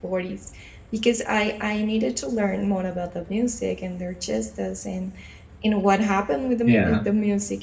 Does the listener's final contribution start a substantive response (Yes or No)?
No